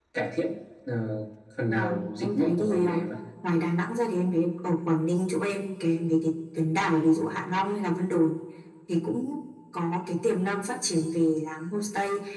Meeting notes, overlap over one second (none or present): present